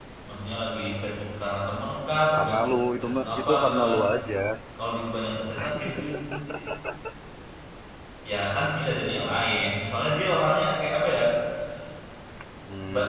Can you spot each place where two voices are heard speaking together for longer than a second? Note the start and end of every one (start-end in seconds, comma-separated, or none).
2.3-4.0